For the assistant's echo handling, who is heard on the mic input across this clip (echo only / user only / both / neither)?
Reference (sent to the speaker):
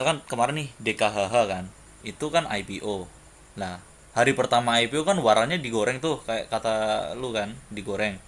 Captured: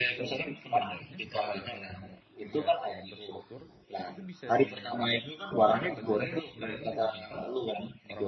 both